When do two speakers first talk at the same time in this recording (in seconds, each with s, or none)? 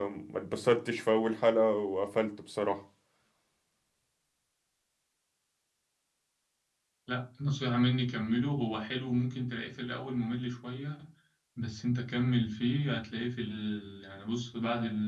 none